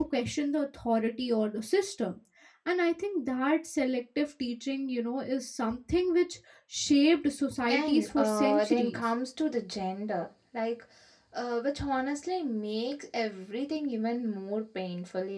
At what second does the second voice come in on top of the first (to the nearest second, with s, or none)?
8 s